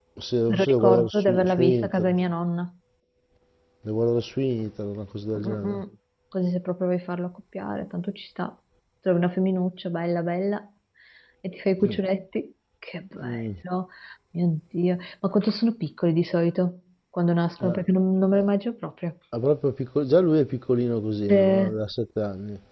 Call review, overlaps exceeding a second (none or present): present